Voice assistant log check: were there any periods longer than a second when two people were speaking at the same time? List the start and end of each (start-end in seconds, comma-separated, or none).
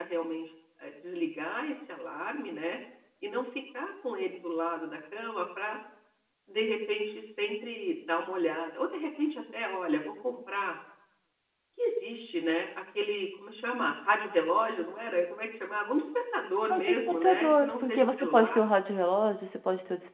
16.7-18.6